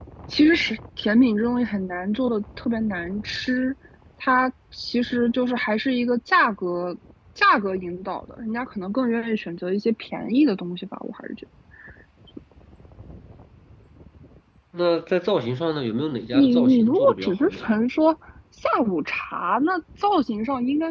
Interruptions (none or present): present